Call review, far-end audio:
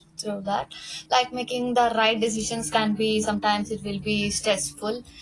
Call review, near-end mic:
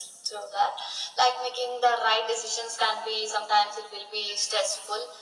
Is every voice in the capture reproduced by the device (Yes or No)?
Yes